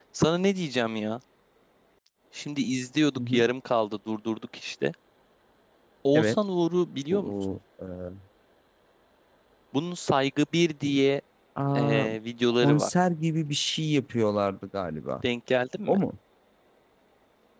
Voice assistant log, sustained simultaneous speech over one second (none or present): none